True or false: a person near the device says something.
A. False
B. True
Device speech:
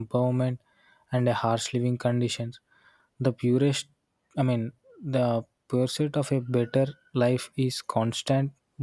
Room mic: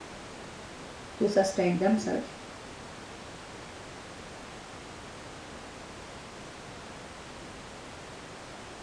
B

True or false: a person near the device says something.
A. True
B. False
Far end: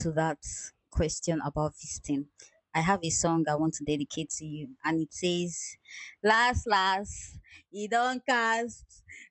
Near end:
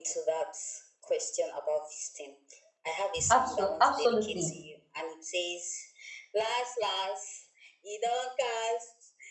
A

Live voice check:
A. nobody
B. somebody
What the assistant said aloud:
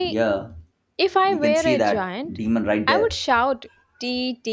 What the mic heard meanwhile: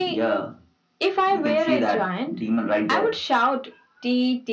A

